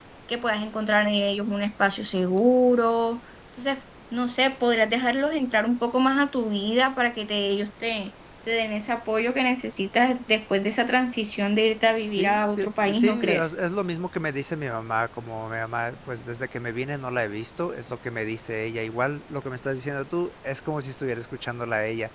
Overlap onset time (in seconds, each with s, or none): 11.9 s